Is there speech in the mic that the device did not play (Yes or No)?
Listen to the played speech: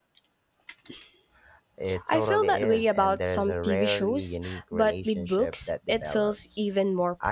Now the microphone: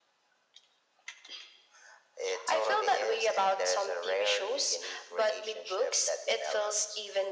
No